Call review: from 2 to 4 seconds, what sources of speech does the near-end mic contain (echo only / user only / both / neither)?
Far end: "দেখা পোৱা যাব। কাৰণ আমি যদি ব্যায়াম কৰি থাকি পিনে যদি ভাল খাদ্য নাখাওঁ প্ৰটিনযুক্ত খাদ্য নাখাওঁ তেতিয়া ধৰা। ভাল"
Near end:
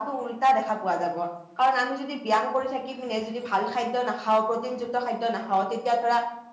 echo only